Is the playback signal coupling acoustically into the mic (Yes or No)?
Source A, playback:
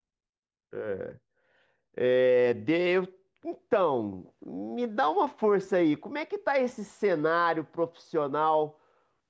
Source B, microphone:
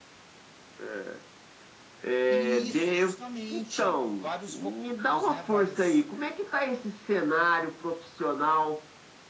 Yes